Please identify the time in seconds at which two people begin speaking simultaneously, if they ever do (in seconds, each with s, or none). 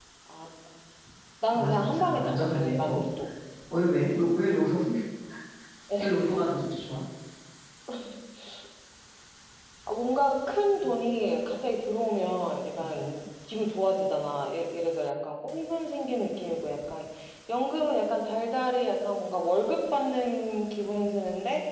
1.5 s